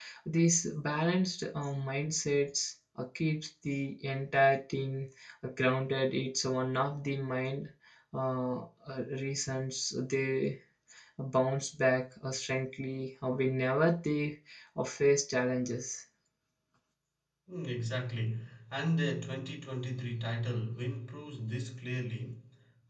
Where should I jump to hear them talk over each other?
none

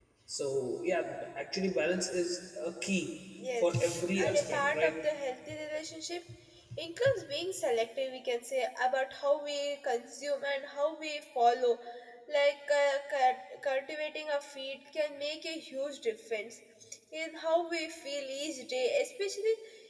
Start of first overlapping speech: 3.6 s

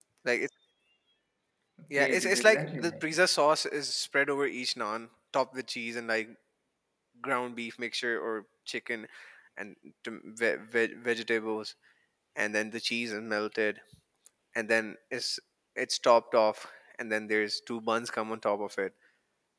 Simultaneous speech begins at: 1.9 s

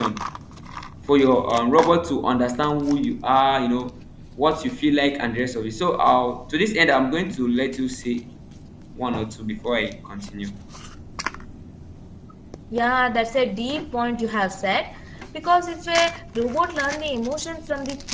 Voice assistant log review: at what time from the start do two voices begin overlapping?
none

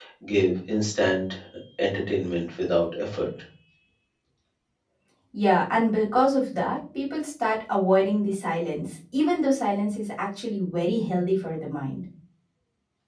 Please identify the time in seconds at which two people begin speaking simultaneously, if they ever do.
none

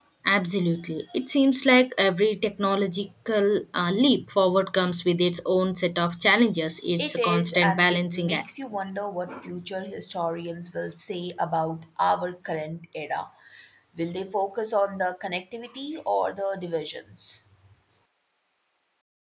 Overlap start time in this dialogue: 7.0 s

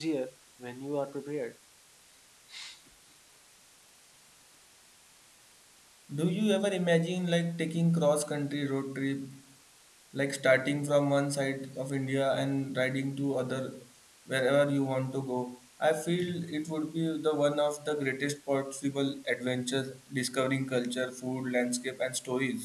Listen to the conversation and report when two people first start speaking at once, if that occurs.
none

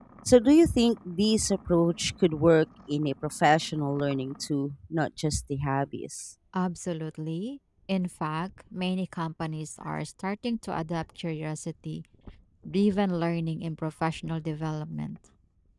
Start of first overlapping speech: none

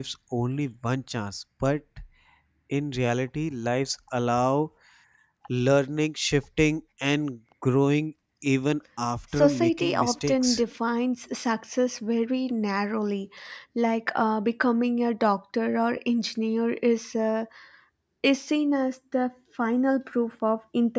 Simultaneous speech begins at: 9.4 s

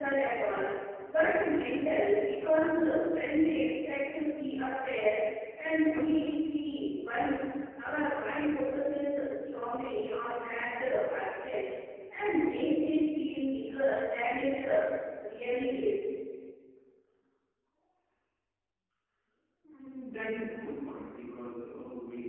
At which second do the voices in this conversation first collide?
none

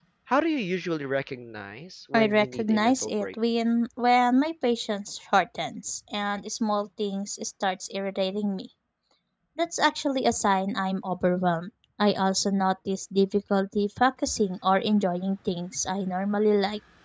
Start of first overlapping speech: 2.1 s

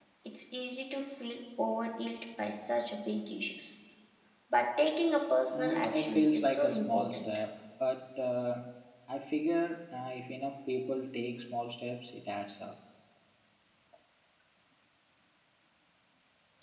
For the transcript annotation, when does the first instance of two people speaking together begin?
5.5 s

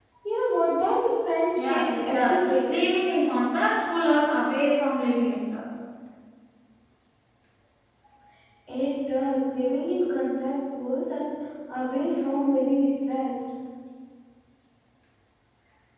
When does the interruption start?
1.6 s

